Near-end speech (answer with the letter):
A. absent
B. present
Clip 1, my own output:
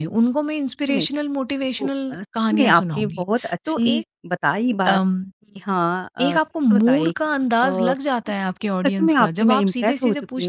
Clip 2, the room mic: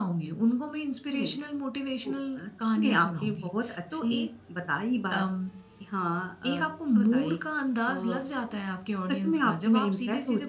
A